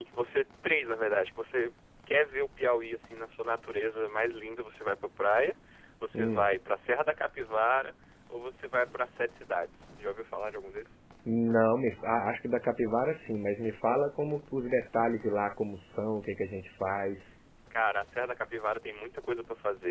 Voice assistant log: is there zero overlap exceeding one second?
Yes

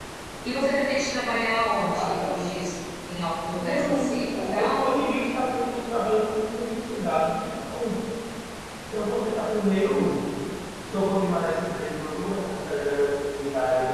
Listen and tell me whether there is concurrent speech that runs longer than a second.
Yes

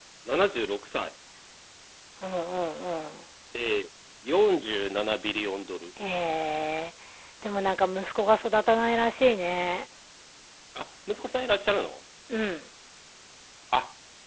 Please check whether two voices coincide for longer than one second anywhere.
No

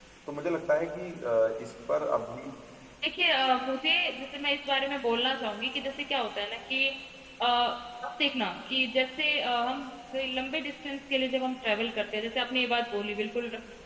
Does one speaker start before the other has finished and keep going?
No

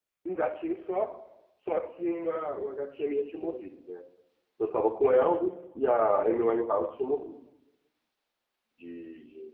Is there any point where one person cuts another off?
No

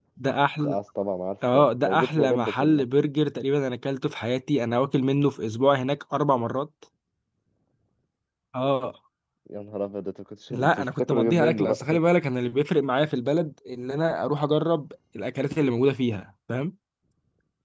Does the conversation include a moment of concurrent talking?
Yes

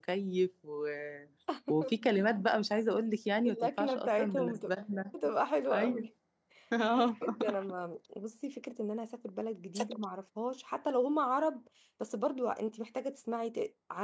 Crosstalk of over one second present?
Yes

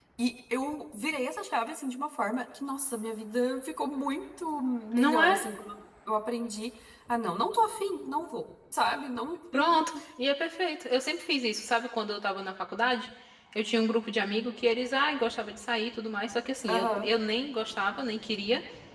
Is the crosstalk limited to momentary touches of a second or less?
Yes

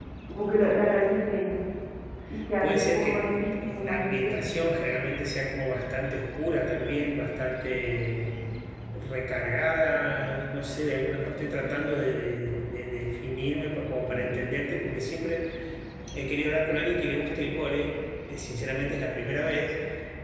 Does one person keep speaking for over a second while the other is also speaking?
Yes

